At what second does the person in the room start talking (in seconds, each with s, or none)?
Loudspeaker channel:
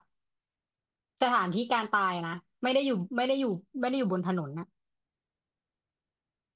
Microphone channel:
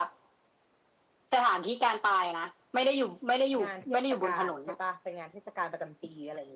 3.6 s